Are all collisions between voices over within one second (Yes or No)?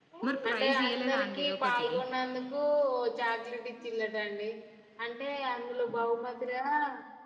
No